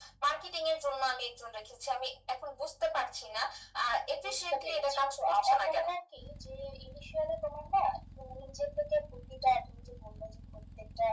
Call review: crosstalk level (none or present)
present